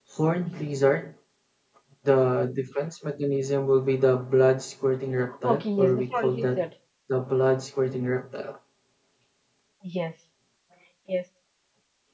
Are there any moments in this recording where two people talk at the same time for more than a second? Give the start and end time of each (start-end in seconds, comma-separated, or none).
5.4-6.6